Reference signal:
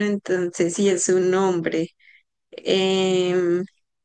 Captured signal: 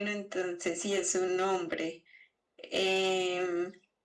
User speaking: No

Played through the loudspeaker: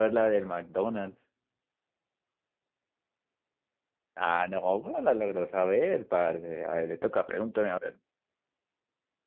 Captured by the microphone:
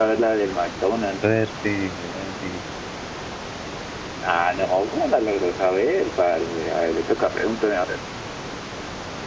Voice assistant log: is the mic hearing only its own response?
No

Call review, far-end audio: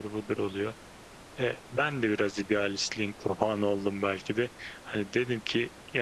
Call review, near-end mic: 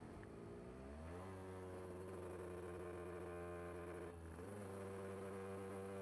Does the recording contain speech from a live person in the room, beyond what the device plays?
No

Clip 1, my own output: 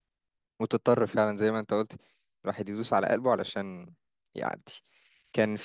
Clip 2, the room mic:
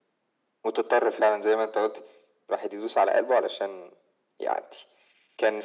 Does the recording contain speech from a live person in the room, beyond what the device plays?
No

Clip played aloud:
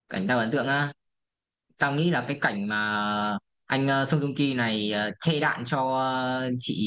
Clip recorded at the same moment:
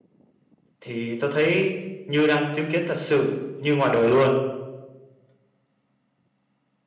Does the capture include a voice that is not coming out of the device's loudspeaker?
Yes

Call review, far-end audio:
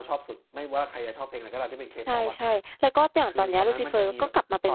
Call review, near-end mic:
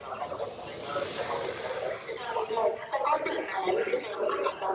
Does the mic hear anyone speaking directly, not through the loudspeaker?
No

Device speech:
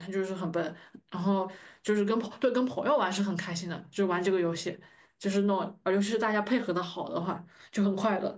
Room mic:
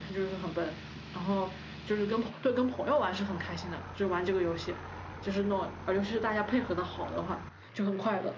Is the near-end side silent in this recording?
Yes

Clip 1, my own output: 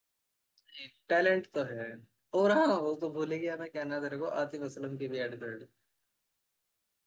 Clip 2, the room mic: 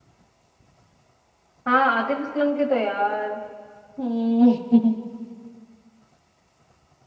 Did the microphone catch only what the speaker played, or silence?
No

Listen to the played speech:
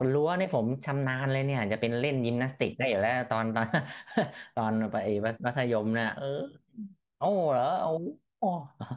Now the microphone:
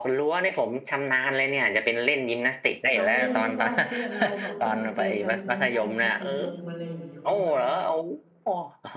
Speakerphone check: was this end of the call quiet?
No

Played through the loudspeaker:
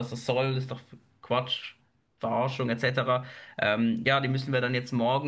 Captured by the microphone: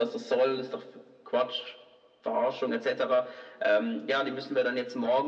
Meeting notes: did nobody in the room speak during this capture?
Yes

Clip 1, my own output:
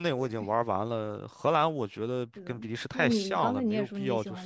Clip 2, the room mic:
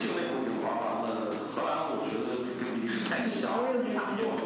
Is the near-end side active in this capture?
Yes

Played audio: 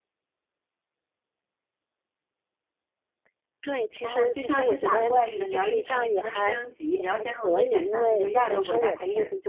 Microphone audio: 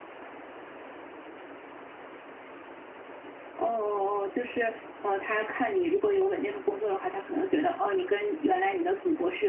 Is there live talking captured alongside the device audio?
Yes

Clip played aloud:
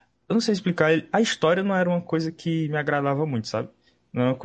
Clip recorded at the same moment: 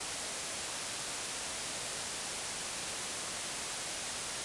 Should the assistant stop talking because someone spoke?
No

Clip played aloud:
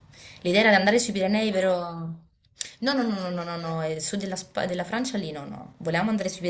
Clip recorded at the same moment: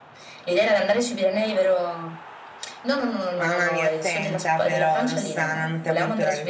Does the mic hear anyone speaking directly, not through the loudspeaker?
Yes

